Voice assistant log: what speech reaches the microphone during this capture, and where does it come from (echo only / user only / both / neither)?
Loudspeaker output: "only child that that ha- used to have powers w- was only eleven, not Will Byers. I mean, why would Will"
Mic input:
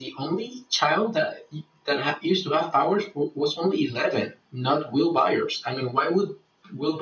echo only